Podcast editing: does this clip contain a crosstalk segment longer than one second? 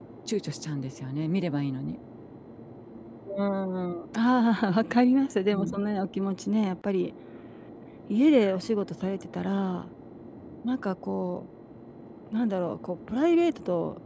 No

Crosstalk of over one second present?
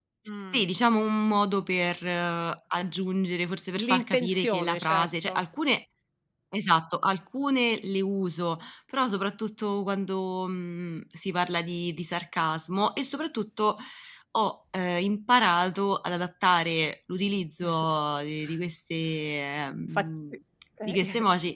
Yes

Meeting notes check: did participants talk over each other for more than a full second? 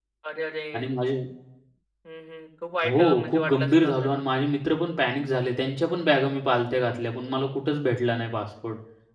Yes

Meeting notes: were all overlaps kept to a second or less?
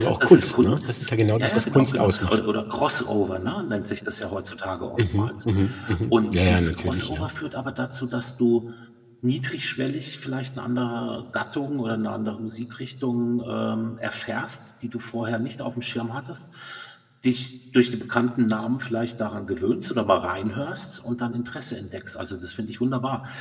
No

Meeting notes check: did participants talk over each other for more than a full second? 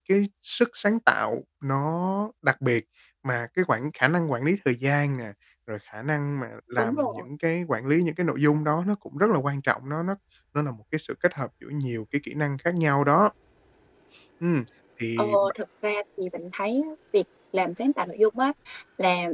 No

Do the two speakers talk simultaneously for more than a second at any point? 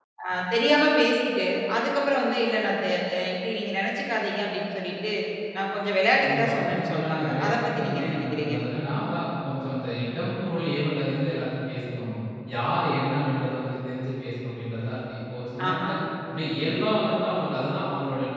Yes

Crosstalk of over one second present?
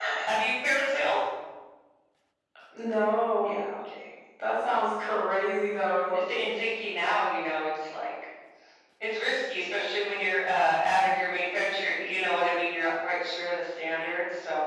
No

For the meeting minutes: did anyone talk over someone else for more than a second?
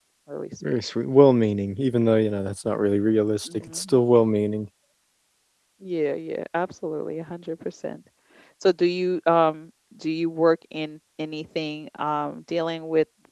No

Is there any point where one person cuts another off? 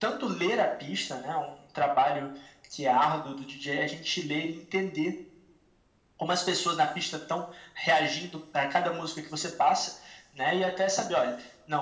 No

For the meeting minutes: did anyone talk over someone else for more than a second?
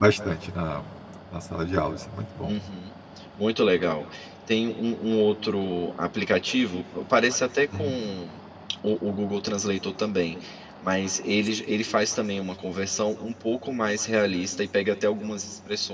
No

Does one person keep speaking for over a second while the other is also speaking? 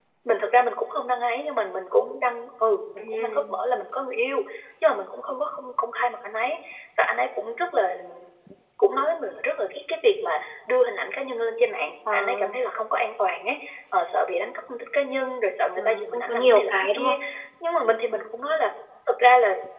Yes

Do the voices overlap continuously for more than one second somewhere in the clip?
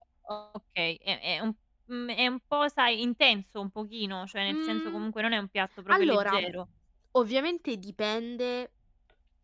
No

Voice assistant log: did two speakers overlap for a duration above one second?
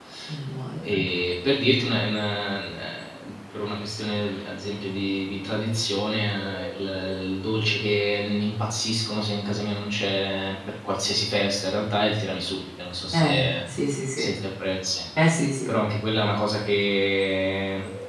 No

